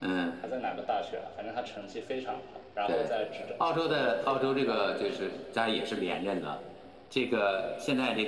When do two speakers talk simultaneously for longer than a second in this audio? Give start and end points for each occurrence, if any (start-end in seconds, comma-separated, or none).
3.6-5.4